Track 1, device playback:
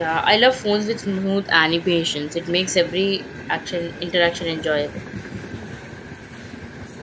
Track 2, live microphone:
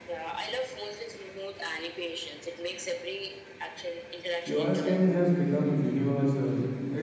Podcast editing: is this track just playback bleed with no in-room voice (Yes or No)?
No